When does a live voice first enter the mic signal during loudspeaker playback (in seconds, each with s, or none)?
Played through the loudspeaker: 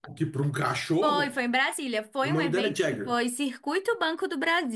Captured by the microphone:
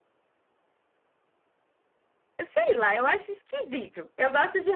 2.4 s